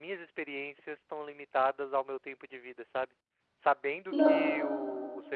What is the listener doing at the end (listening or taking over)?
listening